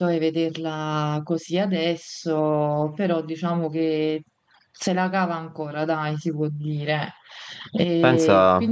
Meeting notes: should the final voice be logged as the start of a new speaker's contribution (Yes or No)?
Yes